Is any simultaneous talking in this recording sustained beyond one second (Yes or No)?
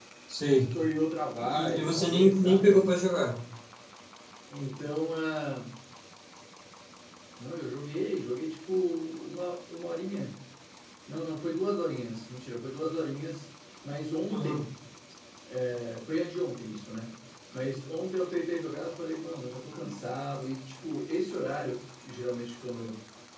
Yes